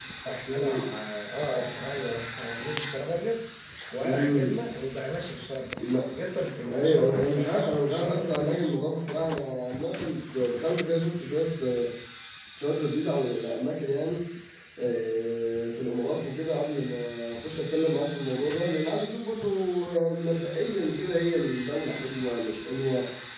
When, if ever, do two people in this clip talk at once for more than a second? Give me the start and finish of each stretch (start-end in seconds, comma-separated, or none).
6.6-8.8